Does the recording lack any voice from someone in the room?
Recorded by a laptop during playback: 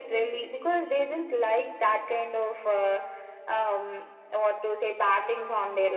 Yes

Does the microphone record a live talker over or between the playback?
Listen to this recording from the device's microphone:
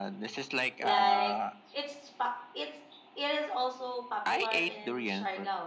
Yes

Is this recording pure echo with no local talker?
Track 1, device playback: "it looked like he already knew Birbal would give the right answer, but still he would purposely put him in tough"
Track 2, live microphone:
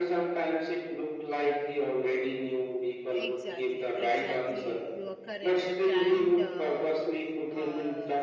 No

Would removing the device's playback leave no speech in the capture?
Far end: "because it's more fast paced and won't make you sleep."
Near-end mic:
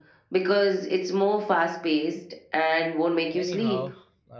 No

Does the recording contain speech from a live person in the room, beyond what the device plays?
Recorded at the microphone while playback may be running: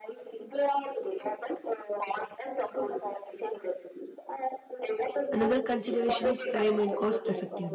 Yes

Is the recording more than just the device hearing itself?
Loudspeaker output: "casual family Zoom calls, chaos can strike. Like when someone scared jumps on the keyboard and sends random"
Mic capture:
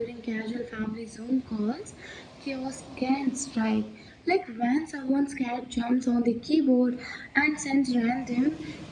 No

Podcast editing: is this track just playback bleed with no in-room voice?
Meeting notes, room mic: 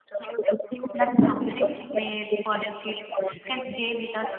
No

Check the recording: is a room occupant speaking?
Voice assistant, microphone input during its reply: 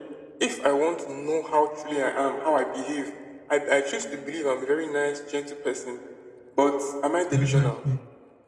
Yes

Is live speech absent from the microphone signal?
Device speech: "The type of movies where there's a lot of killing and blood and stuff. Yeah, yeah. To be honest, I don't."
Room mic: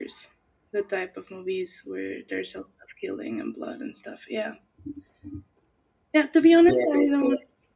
Yes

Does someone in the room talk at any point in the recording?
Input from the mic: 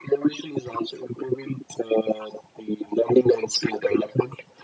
No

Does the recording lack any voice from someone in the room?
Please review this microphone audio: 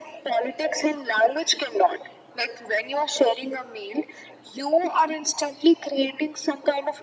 Yes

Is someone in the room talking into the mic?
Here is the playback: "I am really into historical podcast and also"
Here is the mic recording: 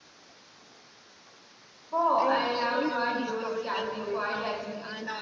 Yes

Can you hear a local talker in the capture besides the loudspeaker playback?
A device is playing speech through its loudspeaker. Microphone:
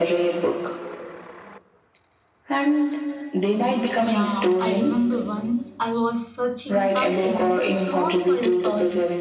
Yes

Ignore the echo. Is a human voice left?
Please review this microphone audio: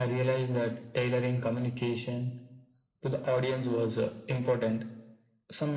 No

